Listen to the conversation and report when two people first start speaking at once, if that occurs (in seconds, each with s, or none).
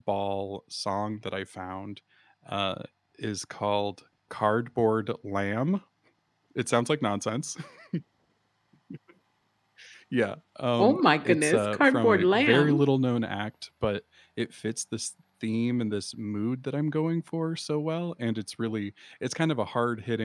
10.8 s